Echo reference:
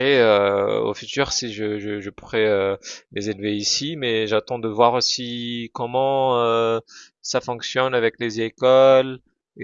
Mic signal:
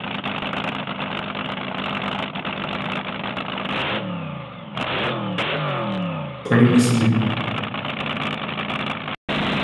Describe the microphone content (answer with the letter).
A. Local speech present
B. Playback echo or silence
A